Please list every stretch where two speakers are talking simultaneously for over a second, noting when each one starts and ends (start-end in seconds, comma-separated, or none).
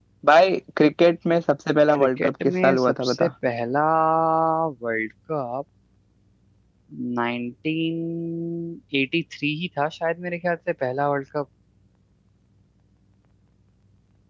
1.9-3.3